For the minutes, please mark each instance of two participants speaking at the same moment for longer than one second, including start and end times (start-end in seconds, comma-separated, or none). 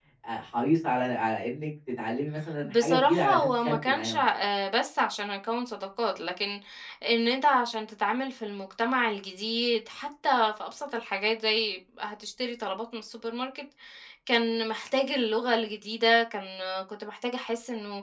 2.6-4.2